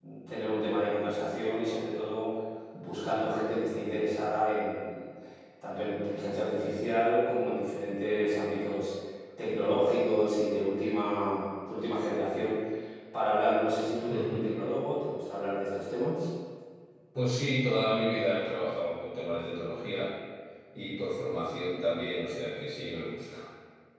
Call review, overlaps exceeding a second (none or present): none